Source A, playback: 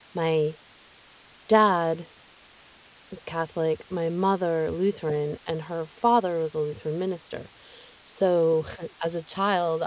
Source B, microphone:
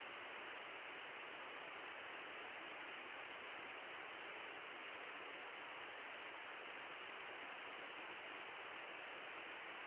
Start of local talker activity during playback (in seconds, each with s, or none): none